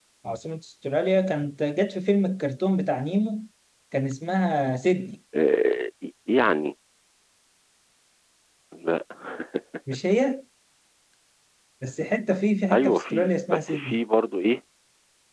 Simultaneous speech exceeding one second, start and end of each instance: 12.7-13.9

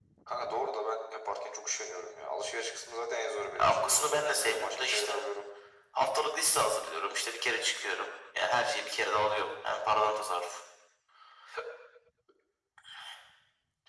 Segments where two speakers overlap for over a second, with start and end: 3.6-5.2

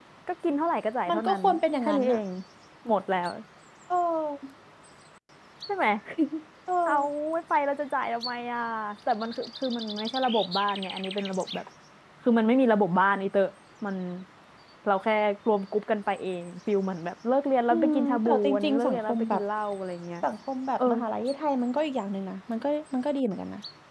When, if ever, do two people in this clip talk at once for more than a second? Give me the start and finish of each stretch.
17.7-19.4

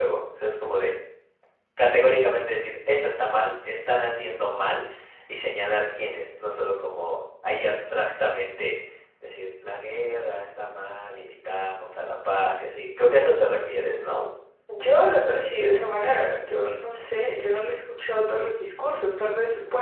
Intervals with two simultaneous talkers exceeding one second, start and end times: none

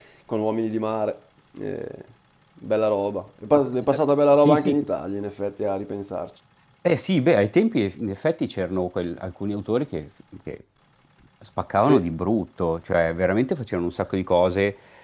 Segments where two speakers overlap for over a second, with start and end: none

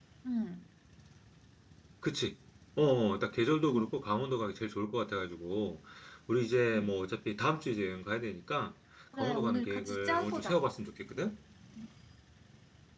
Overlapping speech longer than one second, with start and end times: 9.2-10.6

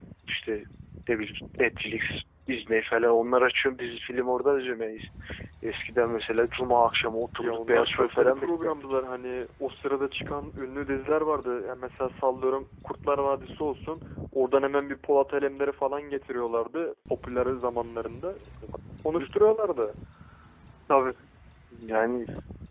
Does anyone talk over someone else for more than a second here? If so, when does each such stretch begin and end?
7.4-9.0

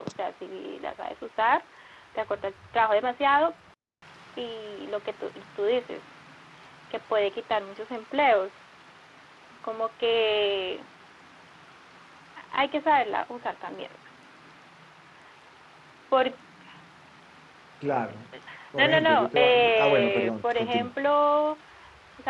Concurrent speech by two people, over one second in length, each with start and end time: 18.8-20.9

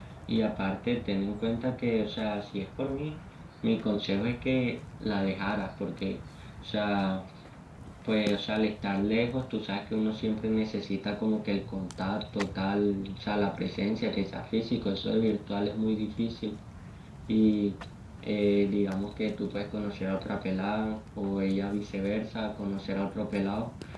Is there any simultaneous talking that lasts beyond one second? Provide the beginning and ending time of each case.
none

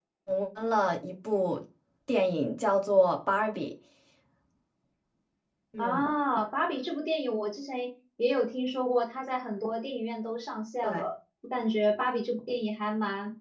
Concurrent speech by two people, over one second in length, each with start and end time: none

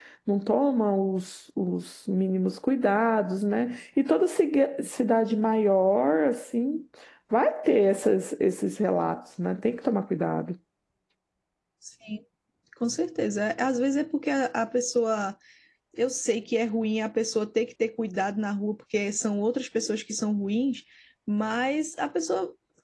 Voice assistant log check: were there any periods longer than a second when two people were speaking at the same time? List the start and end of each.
none

